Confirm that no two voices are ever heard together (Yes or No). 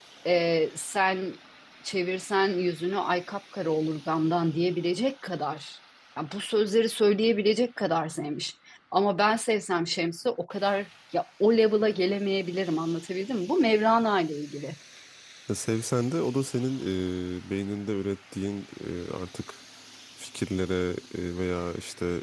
Yes